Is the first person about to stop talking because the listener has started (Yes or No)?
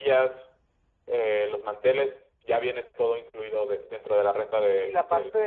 Yes